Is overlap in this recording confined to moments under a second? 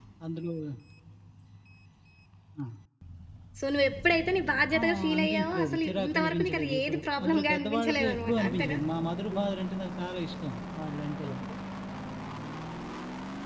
No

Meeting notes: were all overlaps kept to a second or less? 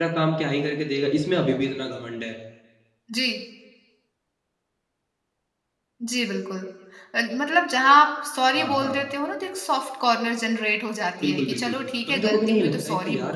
No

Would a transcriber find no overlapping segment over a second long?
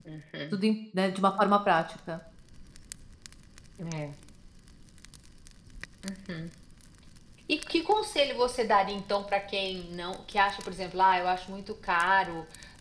Yes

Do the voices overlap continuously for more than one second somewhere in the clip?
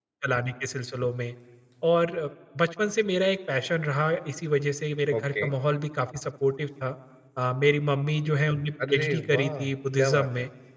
Yes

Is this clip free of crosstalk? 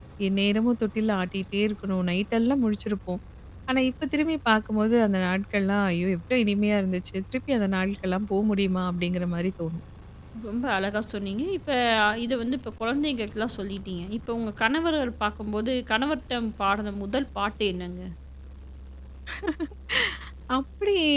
Yes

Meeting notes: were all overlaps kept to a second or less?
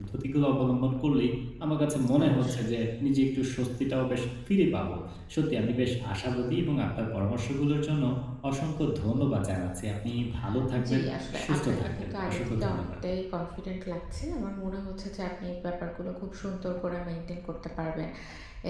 No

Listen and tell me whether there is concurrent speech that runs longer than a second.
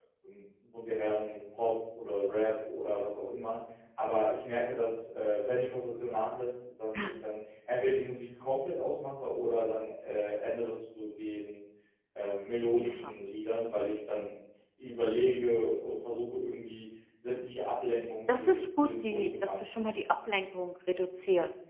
Yes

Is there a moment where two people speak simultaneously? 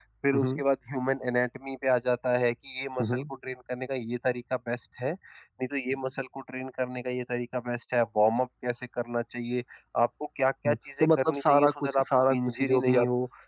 Yes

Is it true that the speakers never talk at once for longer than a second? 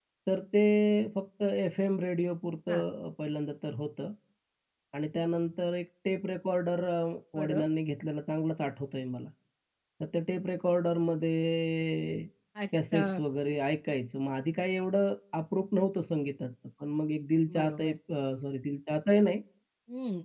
Yes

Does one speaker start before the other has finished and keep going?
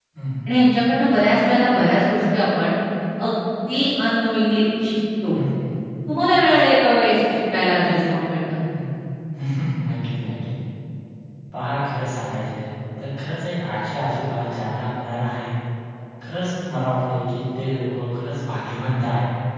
No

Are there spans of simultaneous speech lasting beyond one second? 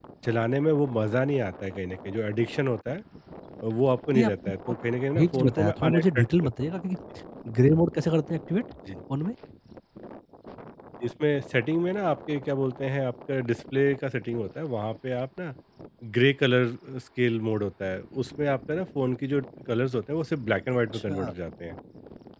Yes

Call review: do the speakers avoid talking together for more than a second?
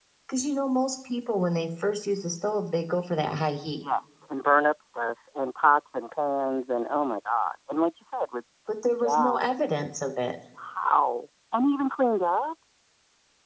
Yes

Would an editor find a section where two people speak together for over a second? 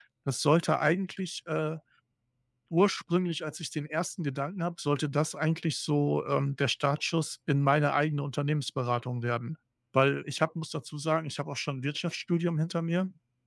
No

